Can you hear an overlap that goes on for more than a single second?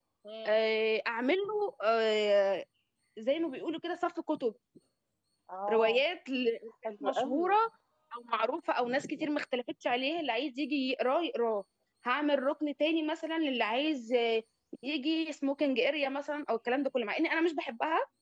No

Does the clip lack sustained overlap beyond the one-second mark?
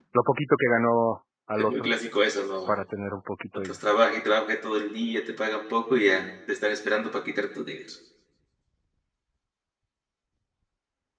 Yes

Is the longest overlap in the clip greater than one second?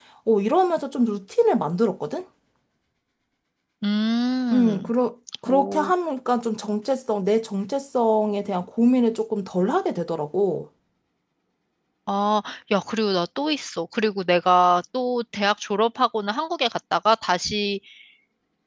No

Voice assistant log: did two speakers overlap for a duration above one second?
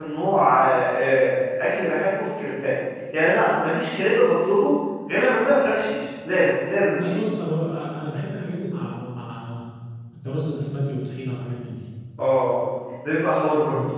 No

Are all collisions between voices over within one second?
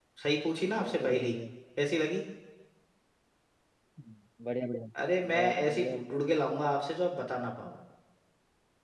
No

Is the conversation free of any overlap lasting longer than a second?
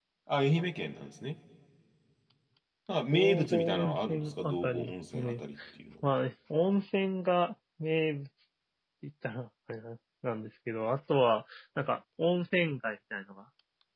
No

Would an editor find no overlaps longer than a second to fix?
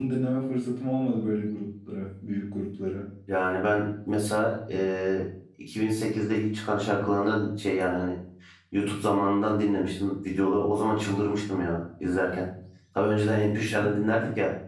Yes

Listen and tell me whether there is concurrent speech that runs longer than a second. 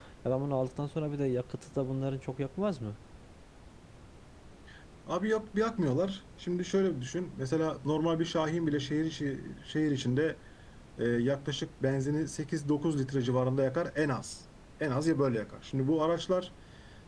No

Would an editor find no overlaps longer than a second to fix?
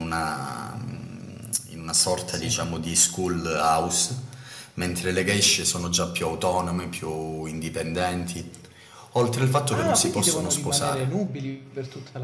No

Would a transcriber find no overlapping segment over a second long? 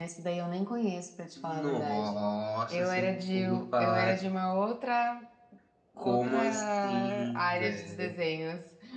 No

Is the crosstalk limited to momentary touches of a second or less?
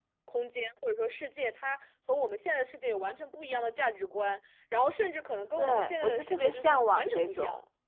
No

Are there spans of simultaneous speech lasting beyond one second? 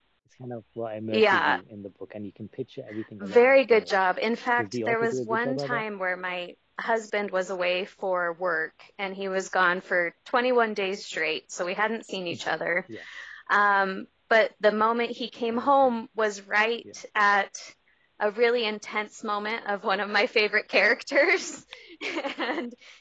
Yes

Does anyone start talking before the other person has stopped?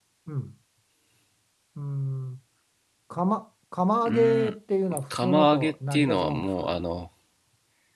Yes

